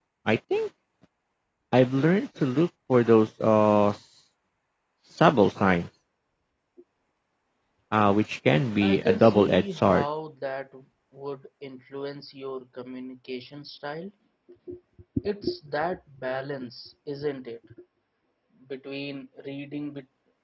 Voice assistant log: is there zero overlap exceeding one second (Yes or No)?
No